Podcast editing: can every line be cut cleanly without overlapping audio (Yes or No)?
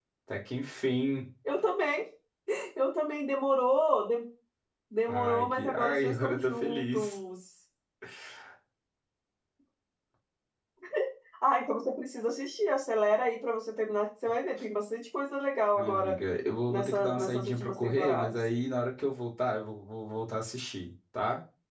No